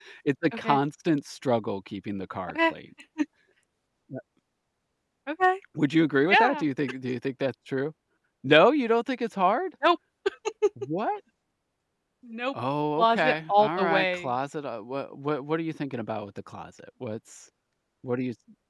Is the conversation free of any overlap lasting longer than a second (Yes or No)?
No